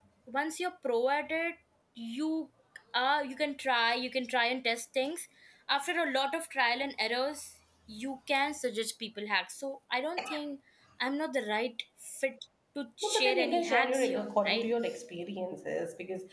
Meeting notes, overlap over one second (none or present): present